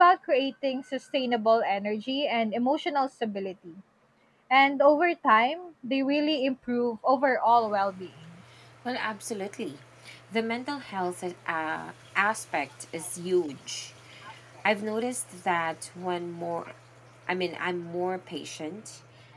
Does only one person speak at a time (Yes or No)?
Yes